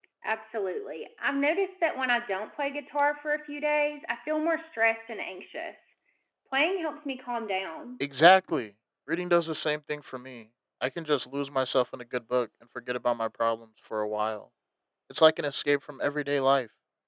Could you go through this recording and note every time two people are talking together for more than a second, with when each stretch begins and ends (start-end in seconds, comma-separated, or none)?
none